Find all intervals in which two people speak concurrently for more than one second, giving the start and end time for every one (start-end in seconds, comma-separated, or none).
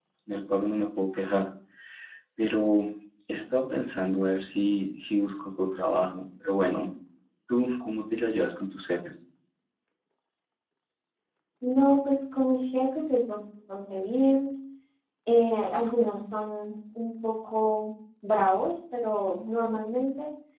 none